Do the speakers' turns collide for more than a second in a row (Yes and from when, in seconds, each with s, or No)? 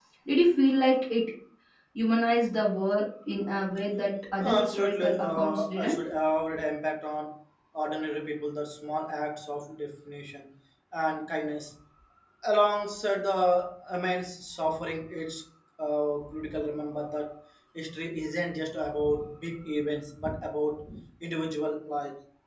Yes, from 4.4 s